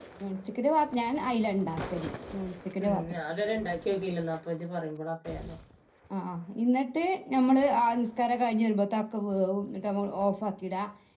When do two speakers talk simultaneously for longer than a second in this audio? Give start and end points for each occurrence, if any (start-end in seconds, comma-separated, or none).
none